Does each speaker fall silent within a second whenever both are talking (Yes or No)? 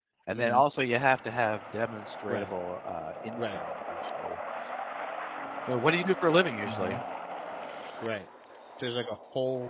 Yes